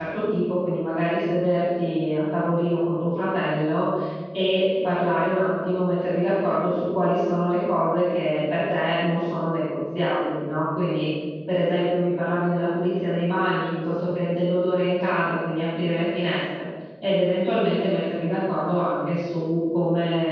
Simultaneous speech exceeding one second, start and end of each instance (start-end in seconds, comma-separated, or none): none